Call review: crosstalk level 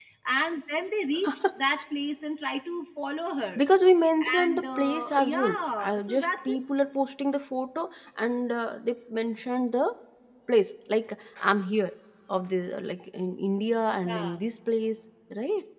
present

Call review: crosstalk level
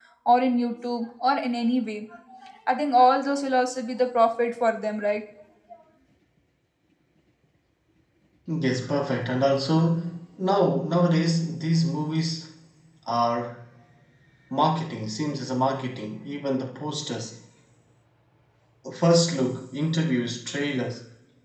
none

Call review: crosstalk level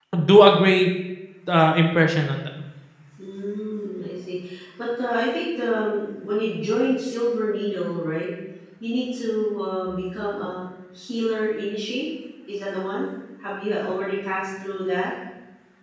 none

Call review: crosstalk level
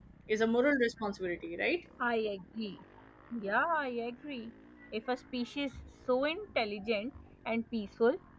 none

